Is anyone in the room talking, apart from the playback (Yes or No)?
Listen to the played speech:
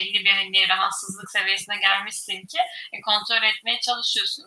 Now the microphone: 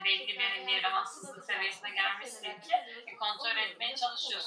Yes